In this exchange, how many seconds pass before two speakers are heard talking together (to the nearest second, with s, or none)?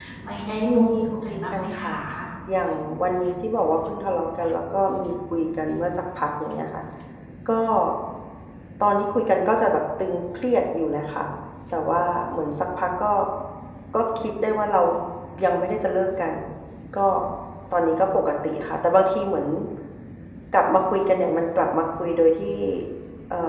1 s